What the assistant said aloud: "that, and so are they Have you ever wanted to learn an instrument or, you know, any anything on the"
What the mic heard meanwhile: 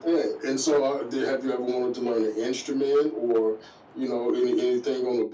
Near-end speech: none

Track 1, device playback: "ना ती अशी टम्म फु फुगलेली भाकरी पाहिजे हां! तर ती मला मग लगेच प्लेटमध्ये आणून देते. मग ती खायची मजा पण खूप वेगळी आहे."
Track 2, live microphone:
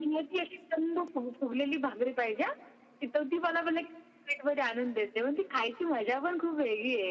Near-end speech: none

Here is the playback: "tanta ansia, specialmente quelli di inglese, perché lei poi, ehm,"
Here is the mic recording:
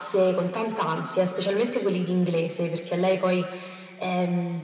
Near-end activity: none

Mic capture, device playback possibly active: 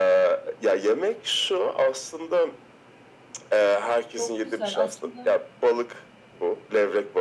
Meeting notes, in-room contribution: present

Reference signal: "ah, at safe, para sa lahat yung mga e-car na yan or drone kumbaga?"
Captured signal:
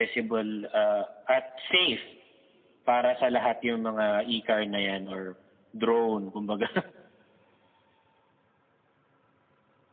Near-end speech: none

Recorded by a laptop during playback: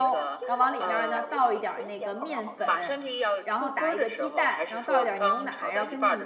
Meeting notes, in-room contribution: present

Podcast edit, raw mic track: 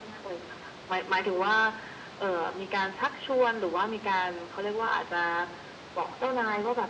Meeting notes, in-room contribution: none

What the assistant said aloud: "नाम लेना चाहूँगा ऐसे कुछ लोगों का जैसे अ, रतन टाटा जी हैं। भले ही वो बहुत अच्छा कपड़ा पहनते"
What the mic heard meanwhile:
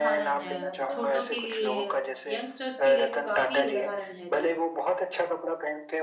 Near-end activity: present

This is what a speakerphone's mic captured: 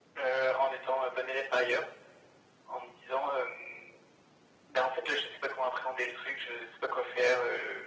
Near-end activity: none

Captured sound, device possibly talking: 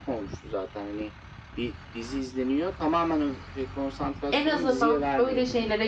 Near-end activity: present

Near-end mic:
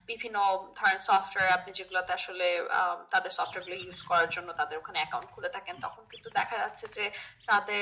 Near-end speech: none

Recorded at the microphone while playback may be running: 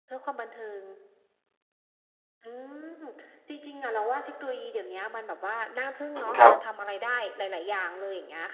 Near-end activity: present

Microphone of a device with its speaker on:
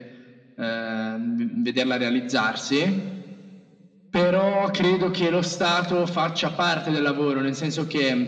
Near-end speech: none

